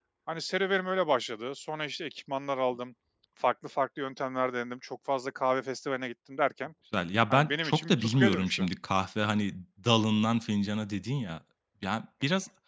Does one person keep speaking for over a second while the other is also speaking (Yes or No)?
Yes